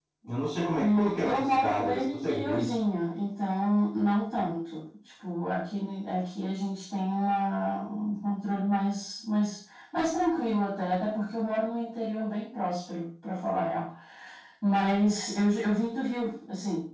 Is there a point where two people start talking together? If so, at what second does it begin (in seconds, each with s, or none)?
0.8 s